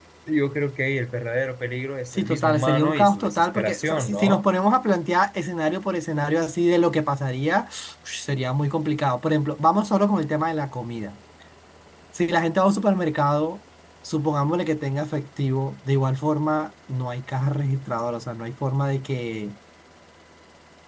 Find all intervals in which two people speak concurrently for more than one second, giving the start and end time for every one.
2.1-4.5

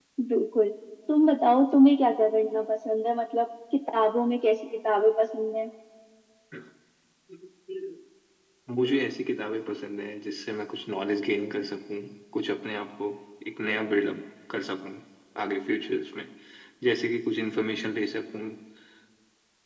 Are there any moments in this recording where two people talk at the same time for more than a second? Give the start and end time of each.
none

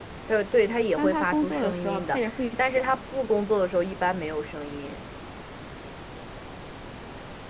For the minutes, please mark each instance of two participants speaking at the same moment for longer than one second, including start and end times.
1.0-3.0

